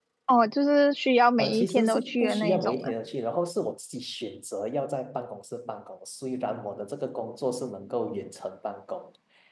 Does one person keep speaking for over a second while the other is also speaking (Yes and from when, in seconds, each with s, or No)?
Yes, from 1.4 s